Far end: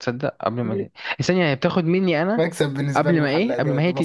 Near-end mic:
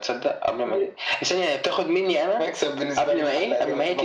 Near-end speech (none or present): none